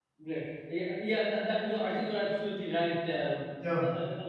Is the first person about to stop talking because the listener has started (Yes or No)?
No